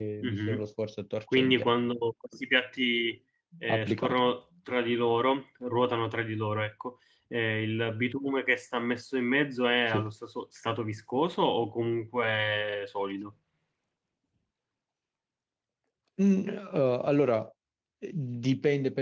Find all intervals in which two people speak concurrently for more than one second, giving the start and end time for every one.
none

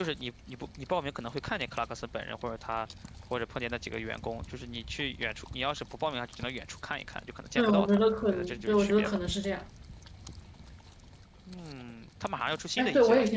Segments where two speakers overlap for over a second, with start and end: 7.5-9.2

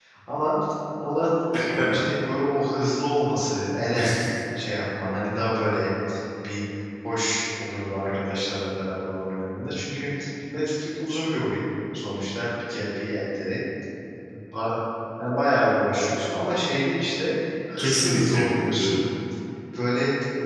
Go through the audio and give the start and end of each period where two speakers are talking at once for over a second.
17.8-19.0

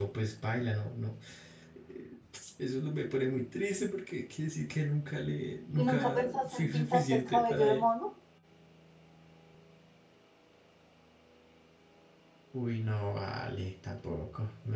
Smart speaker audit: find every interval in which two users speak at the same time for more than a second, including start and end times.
5.8-7.8

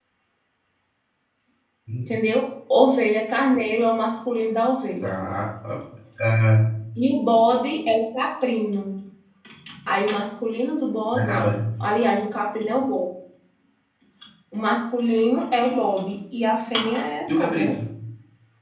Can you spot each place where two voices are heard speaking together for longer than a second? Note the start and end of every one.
none

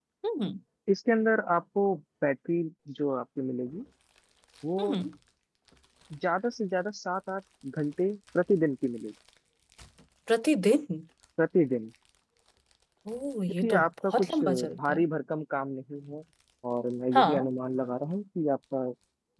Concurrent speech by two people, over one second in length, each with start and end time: 13.5-15.0

